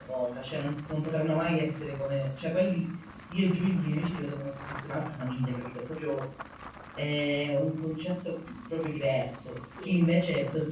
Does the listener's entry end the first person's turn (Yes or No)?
No